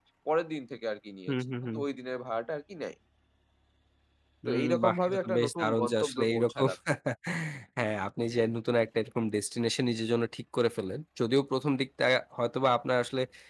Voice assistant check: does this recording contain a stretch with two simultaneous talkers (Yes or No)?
Yes